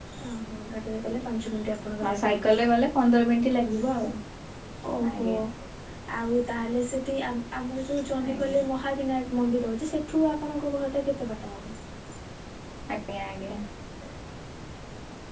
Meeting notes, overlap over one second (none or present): none